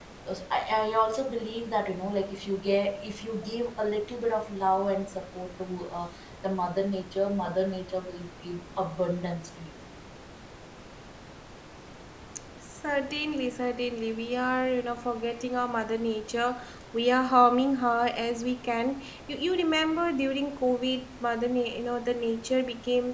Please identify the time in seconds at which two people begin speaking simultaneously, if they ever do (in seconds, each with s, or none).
none